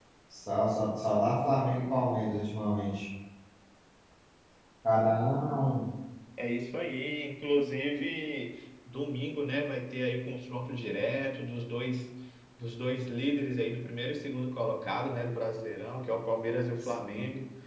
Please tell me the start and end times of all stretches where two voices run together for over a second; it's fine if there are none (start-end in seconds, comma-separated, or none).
none